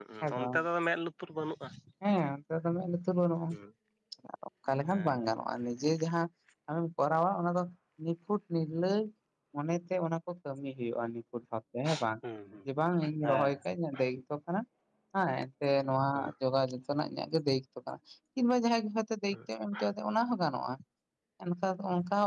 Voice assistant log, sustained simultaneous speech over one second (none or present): none